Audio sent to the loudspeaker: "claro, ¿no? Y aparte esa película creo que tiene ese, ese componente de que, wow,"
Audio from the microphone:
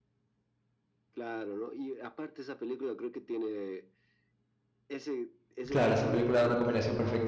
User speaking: Yes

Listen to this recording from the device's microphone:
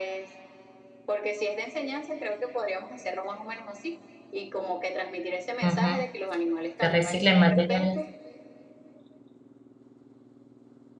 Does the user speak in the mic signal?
Yes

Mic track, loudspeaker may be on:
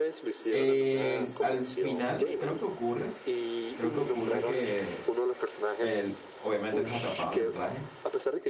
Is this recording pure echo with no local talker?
No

